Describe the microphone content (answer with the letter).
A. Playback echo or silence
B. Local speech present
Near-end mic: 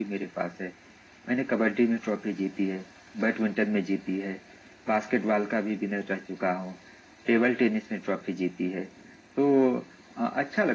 A